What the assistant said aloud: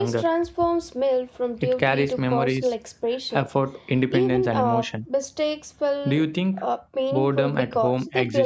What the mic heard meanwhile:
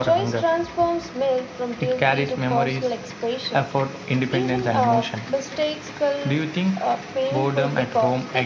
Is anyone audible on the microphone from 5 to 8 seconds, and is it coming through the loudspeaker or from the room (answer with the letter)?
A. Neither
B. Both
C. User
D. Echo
D